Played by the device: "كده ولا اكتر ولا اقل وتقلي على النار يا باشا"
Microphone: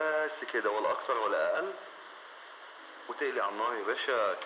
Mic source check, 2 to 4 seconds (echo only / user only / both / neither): echo only